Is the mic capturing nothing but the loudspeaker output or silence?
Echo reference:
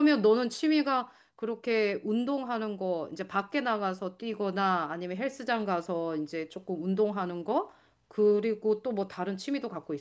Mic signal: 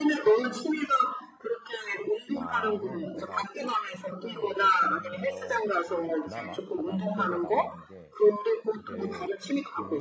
No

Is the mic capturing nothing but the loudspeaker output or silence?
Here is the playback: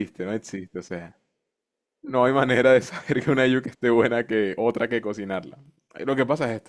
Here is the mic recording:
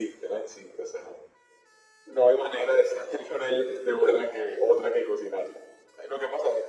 Yes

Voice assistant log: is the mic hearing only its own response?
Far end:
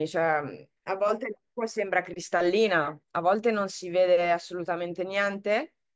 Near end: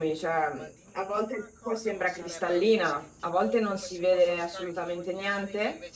No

